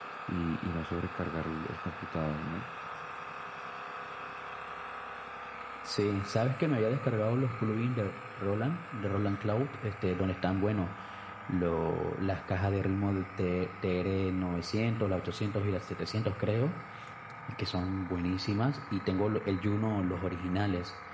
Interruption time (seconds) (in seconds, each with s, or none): none